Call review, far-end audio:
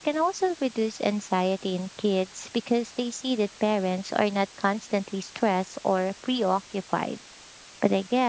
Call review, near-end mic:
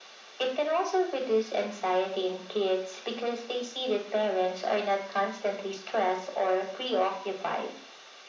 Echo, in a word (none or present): present